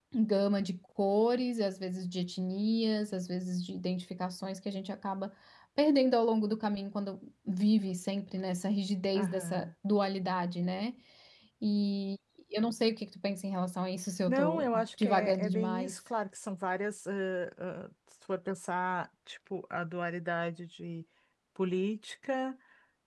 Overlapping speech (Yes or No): Yes